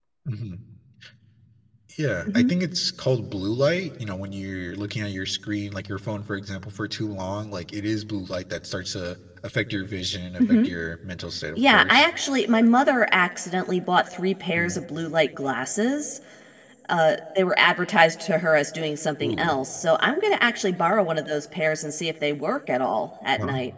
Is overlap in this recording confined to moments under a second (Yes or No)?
Yes